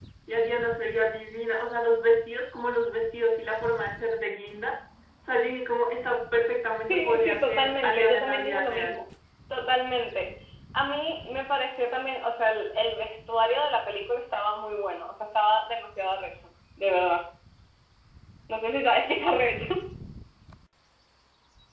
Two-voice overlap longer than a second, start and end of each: 6.9-9.0

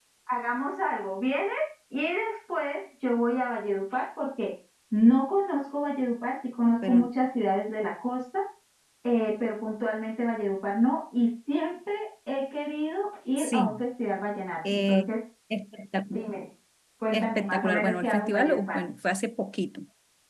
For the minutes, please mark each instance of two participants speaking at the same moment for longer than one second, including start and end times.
17.1-18.8

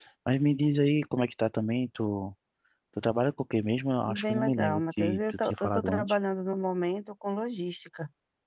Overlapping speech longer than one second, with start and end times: 4.1-6.2

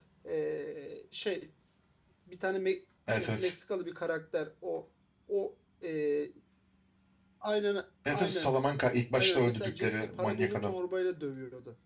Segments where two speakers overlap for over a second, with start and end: 9.1-10.7

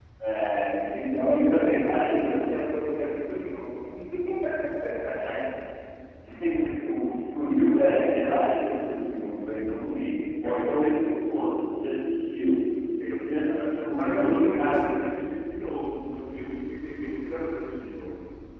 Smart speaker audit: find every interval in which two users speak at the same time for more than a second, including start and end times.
1.2-2.6, 13.2-15.0

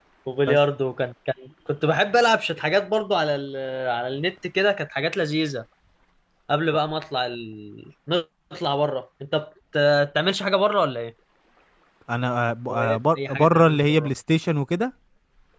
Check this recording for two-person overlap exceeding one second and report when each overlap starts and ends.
12.7-14.1

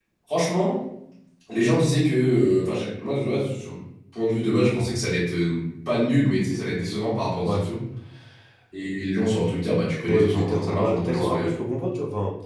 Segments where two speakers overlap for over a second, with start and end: 10.1-11.4

